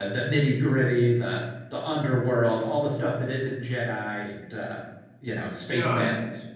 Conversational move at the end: taking over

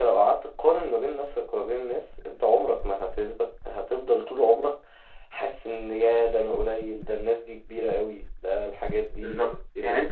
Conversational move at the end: taking over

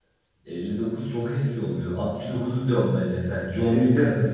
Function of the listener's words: taking over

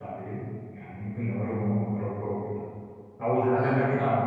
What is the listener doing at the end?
listening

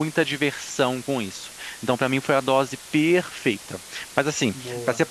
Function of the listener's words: listening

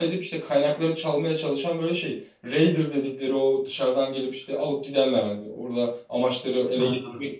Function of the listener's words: listening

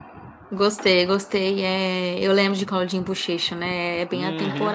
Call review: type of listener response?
taking over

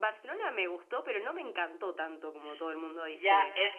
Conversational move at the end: taking over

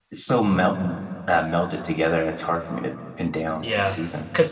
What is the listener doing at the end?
taking over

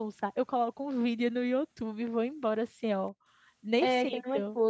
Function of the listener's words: taking over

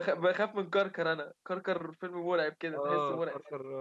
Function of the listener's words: taking over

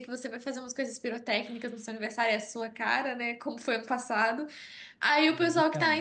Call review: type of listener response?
listening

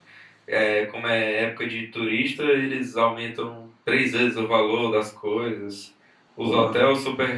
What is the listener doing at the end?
listening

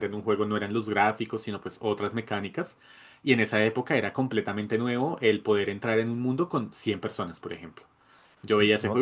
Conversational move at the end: listening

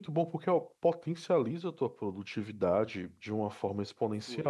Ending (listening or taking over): listening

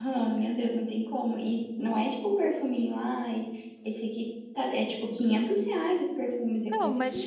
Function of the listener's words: taking over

